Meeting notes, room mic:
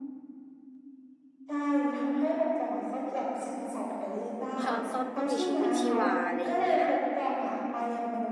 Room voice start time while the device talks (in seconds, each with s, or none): 4.6 s